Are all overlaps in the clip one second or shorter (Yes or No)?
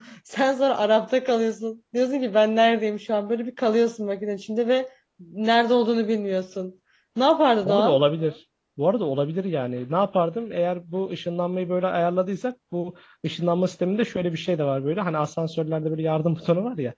Yes